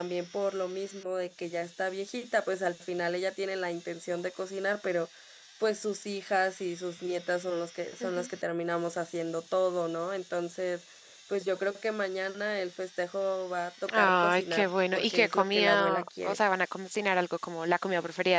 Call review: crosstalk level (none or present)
present